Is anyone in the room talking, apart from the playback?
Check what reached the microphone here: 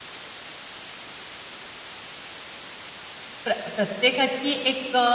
Yes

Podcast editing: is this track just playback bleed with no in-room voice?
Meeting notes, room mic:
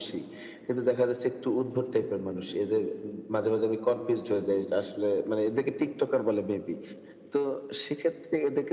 Yes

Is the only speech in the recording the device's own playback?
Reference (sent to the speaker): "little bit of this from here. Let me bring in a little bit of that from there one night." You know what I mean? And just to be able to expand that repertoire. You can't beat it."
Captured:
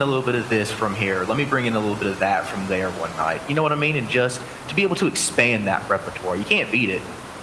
Yes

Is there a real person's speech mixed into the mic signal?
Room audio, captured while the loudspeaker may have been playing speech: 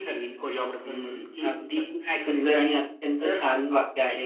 Yes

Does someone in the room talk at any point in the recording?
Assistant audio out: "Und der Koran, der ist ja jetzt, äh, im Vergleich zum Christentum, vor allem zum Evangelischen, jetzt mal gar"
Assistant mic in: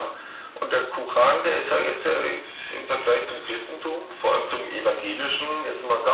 No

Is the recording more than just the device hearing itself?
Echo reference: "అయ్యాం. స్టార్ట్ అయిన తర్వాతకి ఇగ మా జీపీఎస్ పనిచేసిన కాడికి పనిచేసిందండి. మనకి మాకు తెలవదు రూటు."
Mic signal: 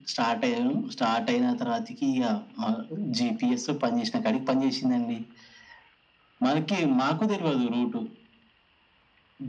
No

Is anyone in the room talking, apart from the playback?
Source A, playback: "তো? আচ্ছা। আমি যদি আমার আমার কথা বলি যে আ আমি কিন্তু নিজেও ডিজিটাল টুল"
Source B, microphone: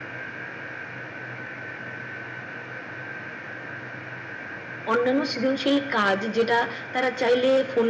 Yes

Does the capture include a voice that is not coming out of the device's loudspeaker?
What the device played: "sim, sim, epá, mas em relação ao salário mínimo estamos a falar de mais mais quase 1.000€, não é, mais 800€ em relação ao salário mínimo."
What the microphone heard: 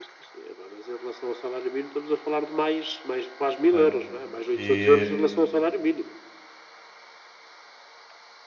Yes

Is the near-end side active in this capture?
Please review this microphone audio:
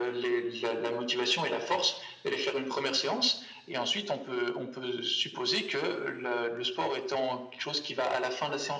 No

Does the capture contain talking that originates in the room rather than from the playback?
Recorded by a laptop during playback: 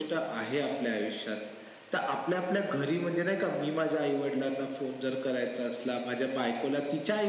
No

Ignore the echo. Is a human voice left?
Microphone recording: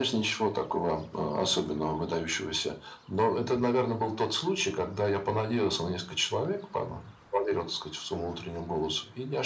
No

